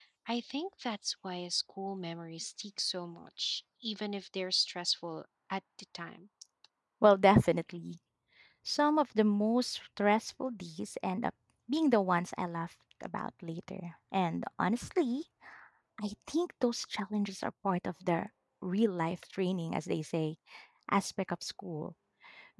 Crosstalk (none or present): none